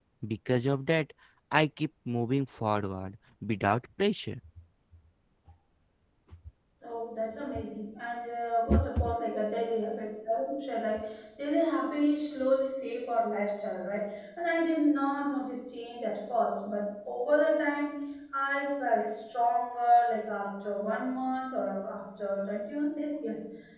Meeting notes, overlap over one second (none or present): none